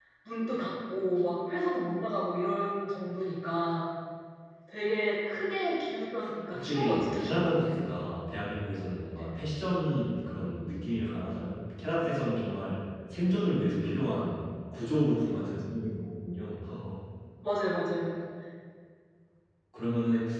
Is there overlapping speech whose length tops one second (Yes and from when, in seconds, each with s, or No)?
Yes, from 6.5 s